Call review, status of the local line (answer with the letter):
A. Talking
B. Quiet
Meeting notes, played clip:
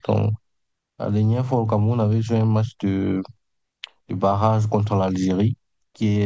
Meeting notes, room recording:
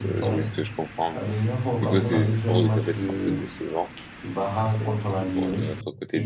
A